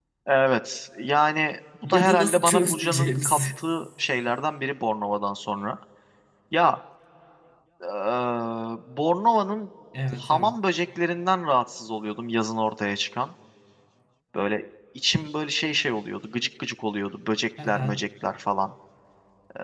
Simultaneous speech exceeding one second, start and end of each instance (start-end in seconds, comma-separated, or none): 1.8-3.4